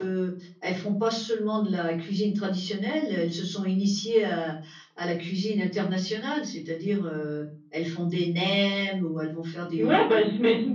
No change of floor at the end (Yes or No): No